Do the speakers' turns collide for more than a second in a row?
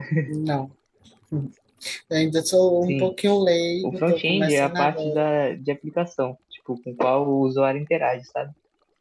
Yes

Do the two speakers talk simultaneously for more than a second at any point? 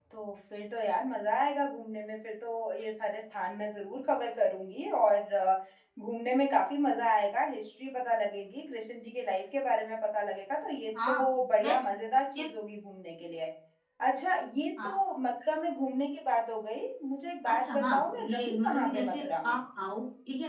Yes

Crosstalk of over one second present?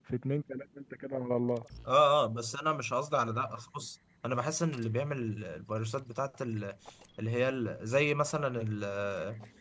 No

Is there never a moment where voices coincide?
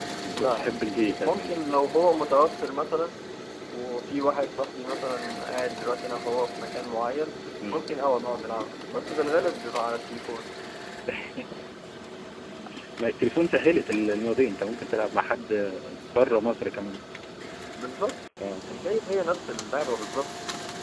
No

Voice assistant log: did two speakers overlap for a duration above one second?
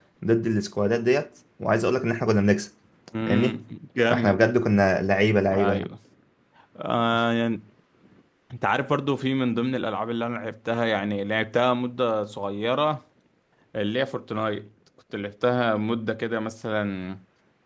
No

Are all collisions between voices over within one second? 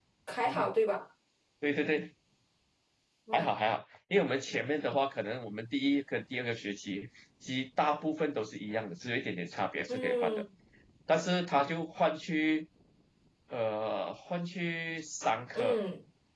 Yes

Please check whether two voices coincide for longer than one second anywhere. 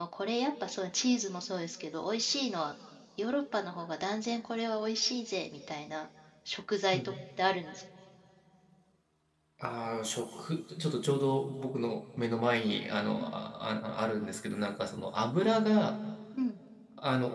No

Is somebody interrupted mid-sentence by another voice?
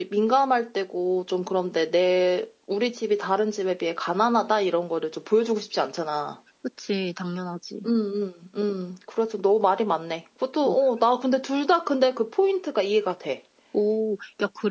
No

